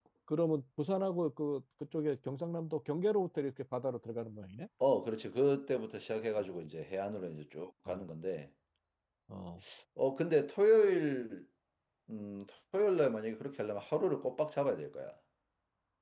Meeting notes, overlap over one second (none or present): none